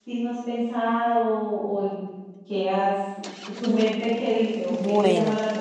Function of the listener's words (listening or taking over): taking over